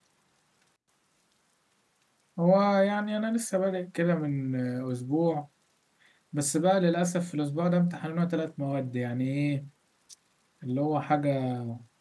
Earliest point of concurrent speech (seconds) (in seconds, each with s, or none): none